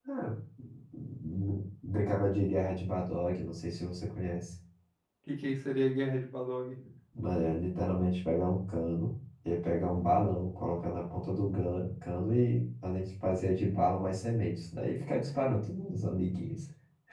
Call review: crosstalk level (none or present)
none